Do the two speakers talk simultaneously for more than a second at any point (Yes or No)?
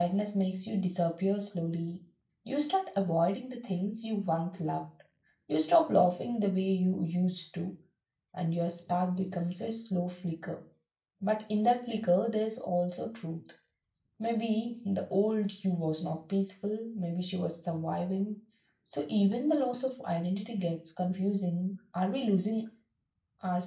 No